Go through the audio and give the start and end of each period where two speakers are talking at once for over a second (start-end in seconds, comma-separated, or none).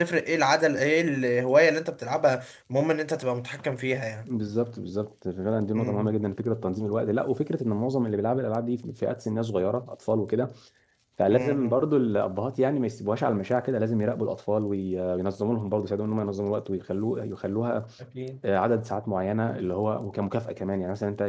none